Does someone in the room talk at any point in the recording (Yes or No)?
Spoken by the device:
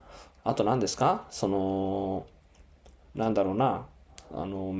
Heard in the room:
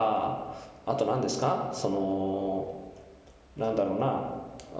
No